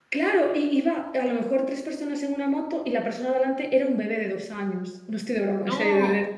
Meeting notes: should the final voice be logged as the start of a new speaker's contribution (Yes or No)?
No